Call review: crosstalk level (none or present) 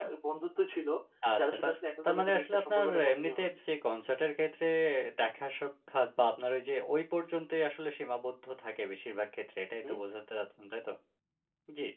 present